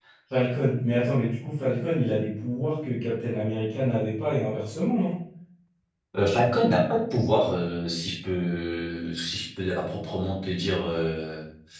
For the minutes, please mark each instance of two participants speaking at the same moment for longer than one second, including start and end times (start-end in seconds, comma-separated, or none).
none